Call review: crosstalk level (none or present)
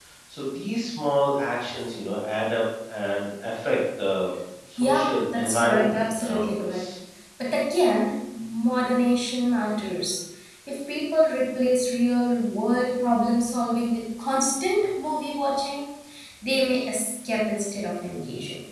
present